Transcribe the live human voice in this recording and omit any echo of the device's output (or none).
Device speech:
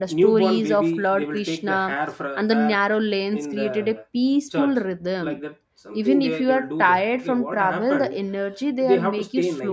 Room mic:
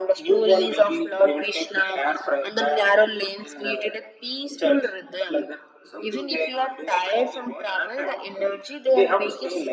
none